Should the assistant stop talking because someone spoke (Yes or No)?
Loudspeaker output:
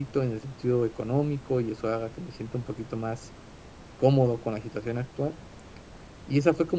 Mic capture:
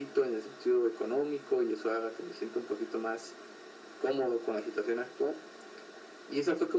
No